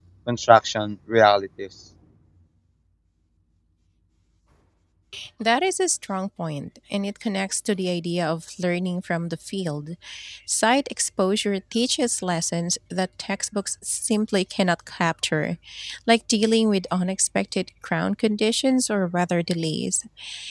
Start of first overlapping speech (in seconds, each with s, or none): none